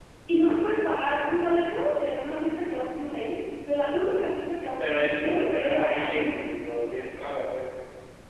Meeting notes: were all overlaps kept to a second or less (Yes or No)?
No